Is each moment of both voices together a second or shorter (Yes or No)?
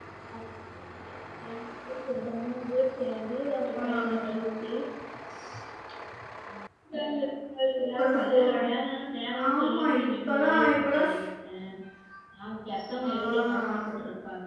No